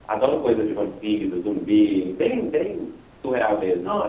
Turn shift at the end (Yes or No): Yes